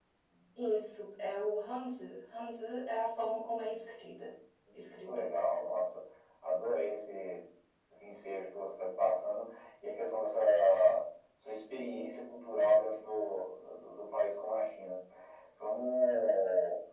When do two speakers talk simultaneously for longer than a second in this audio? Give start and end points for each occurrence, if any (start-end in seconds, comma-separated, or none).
none